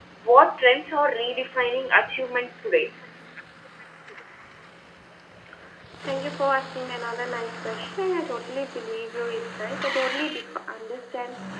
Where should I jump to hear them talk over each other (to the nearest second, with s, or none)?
none